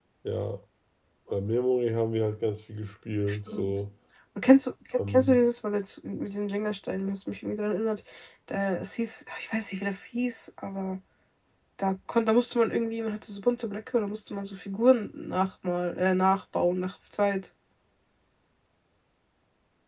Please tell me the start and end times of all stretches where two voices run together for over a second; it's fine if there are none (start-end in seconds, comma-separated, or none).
none